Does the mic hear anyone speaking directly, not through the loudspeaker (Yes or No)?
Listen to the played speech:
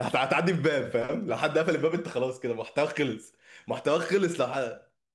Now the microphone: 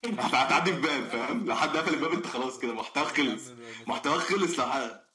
Yes